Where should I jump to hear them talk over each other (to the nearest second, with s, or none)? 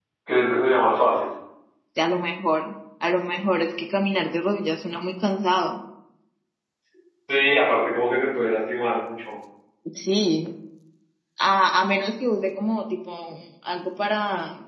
none